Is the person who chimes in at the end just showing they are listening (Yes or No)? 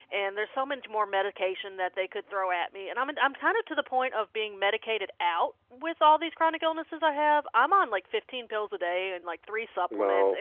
Yes